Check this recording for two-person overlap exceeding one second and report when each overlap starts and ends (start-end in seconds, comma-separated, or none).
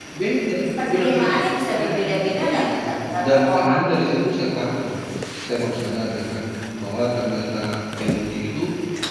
0.9-4.0